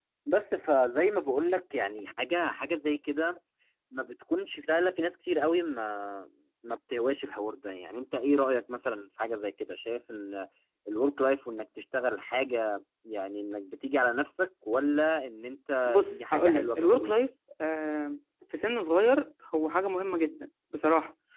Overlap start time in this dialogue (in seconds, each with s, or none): 15.9 s